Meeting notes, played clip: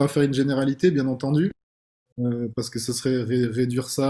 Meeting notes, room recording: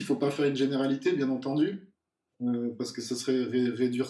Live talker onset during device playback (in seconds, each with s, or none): none